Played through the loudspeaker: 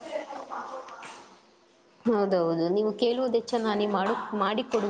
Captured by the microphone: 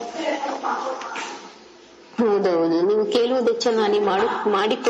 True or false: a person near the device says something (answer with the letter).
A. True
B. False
B